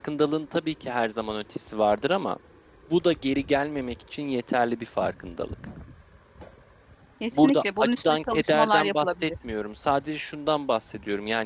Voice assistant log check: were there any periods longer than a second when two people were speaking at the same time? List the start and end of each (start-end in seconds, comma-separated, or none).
7.3-9.3